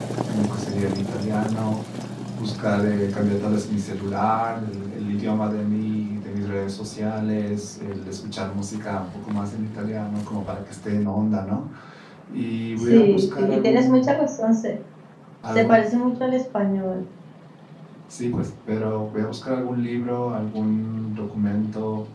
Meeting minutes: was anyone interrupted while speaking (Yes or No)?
Yes